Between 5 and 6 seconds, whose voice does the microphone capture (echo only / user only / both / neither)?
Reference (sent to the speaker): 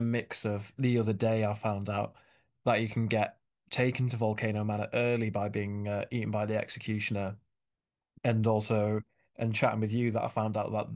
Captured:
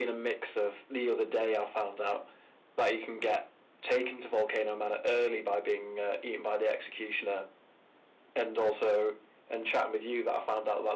echo only